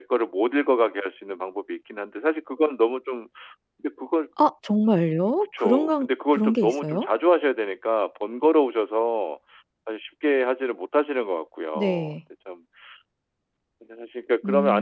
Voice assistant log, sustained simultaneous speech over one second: present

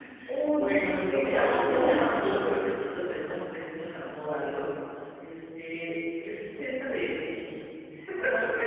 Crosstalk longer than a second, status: present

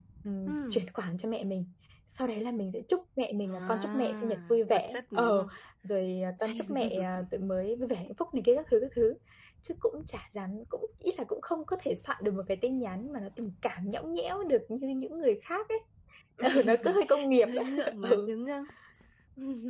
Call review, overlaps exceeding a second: present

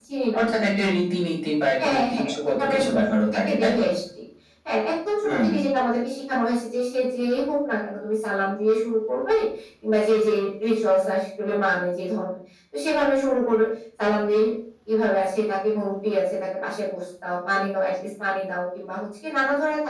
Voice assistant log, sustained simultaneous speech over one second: present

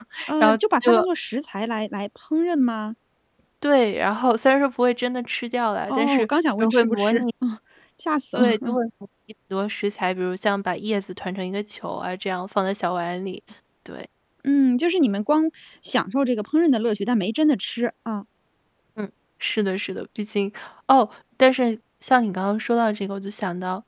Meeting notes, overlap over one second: present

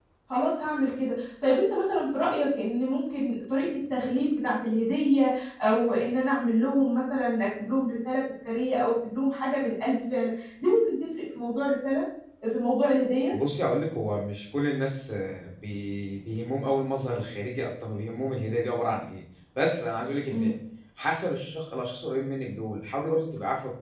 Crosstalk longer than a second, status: none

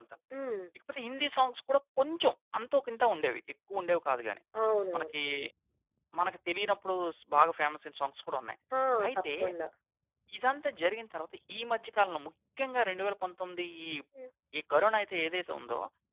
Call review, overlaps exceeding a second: none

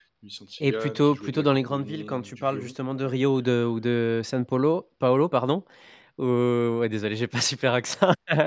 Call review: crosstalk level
present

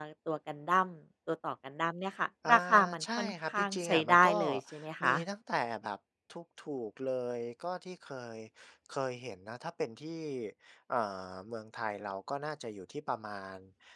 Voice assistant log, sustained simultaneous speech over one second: present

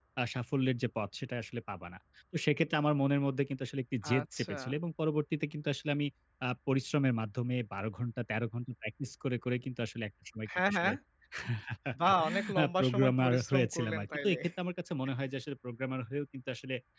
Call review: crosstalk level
present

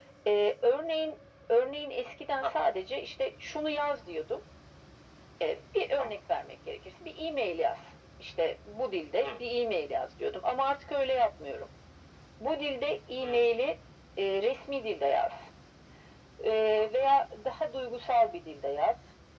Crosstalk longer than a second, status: none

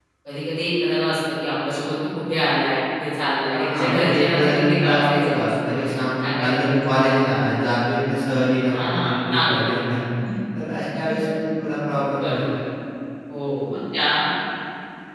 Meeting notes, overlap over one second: present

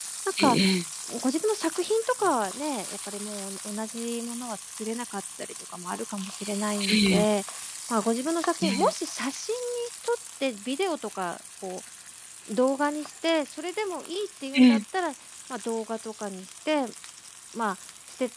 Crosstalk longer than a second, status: none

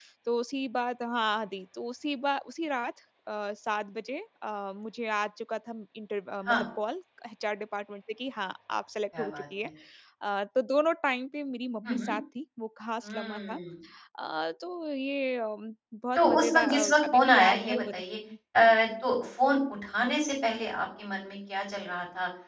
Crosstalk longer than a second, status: present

